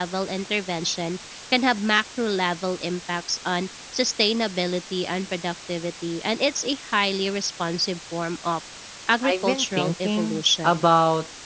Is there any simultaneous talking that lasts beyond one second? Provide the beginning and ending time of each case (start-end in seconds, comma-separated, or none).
9.3-10.8